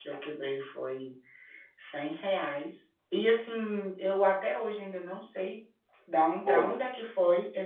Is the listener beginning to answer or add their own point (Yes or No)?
No